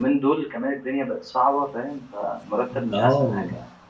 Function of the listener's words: taking over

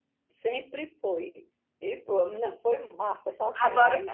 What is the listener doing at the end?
taking over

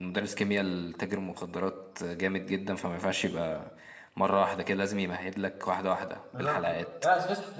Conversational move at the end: taking over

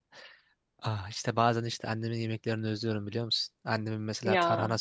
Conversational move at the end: listening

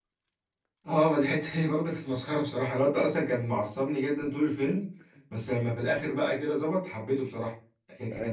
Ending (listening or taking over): listening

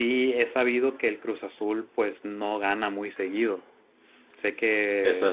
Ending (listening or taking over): listening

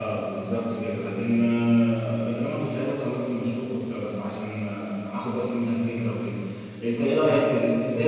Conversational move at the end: taking over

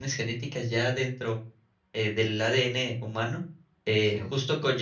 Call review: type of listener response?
listening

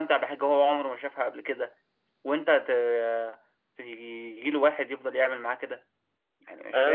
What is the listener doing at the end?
taking over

